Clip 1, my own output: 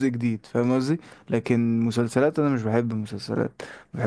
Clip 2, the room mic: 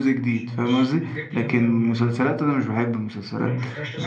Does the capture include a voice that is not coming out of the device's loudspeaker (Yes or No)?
Yes